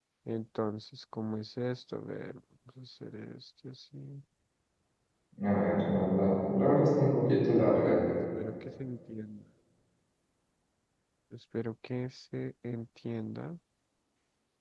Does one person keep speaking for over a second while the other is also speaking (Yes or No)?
No